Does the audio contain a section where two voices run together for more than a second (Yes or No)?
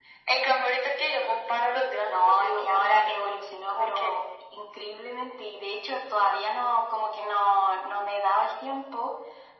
Yes